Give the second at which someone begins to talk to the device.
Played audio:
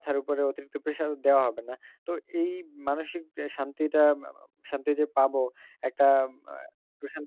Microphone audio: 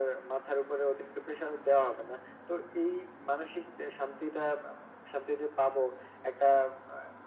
none

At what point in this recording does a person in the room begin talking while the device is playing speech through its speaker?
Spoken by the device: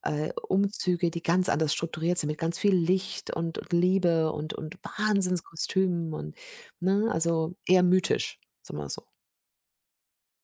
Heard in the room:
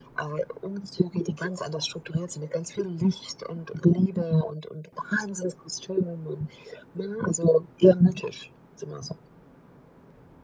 none

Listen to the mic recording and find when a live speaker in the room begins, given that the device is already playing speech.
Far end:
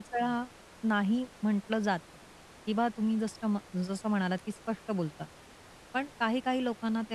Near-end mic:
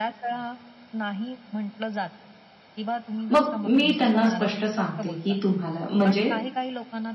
3 s

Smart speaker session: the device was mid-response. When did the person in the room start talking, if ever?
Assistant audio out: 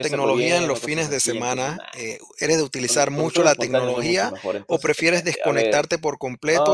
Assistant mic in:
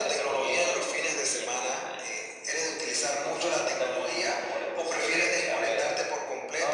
none

